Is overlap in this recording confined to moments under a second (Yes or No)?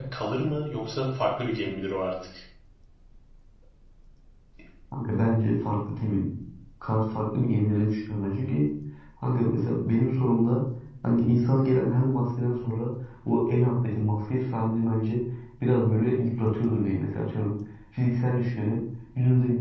Yes